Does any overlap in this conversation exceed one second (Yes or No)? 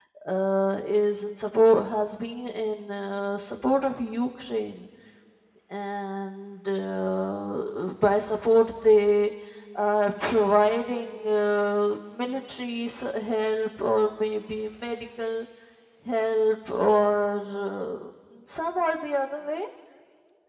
No